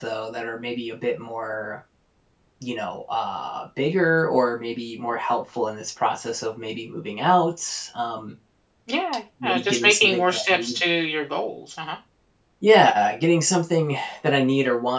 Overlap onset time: 9.4 s

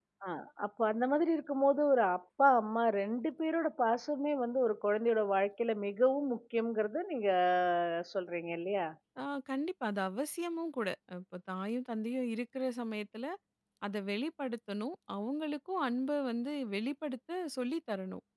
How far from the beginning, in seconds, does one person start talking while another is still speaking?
none

